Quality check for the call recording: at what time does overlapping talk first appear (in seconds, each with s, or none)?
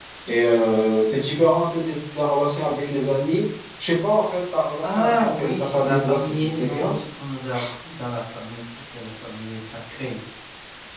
4.8 s